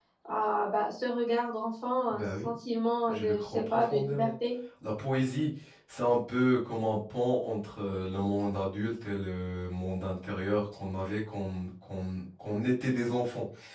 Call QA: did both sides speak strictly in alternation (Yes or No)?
No